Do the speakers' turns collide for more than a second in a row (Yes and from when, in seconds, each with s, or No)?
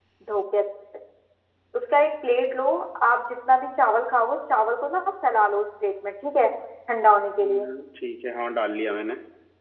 No